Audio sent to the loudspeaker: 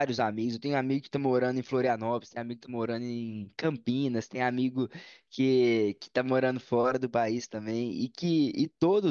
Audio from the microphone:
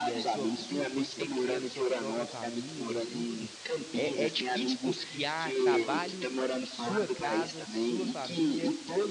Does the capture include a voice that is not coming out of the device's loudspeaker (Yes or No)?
Yes